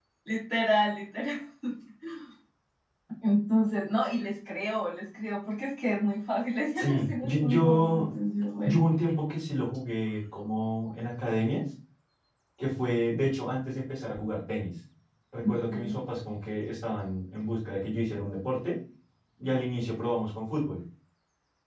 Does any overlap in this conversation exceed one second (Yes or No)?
Yes